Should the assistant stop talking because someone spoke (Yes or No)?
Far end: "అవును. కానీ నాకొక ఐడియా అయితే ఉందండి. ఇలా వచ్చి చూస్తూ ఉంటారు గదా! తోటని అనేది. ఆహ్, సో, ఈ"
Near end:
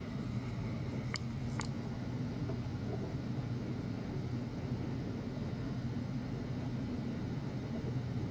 No